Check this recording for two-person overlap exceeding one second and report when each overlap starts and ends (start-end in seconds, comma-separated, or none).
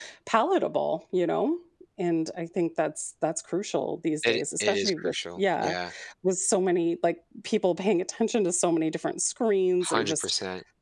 4.2-5.8